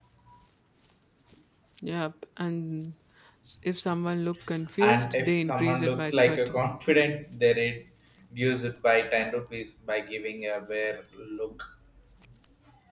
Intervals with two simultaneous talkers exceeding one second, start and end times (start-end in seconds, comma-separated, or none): 4.8-6.6